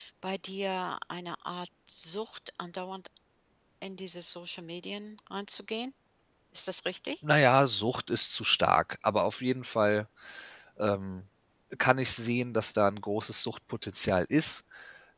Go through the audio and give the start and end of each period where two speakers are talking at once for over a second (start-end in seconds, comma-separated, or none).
none